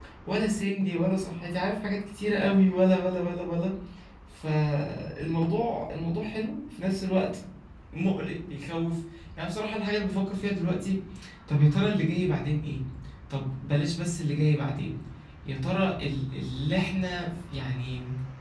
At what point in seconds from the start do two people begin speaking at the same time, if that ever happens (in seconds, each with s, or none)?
none